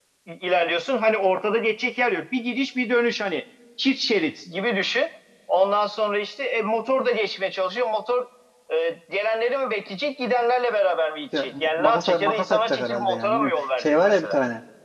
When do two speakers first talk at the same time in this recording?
11.3 s

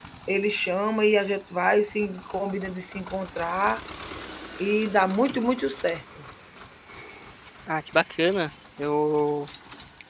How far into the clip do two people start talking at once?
none

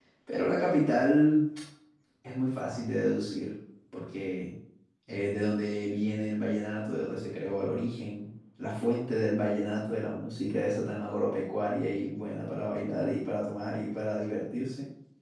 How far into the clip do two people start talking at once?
none

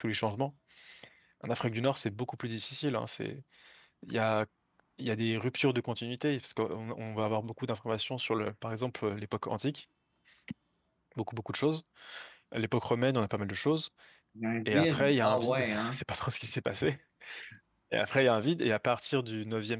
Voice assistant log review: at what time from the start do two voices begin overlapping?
14.7 s

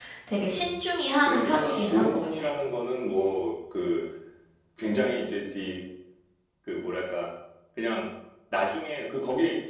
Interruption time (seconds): 1.2 s

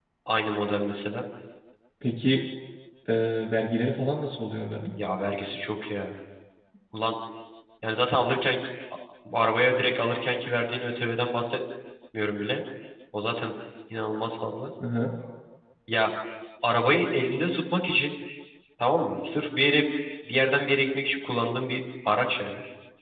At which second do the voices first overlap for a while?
none

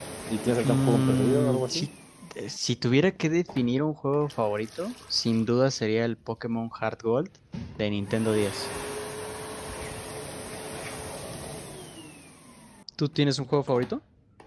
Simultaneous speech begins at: 0.6 s

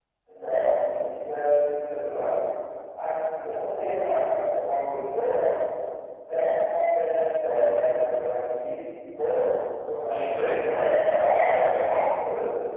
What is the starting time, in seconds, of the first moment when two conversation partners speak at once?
10.1 s

